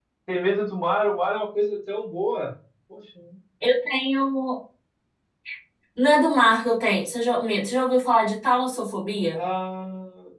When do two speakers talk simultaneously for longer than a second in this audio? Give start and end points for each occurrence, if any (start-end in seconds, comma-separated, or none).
none